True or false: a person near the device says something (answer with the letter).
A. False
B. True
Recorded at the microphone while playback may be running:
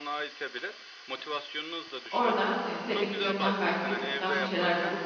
B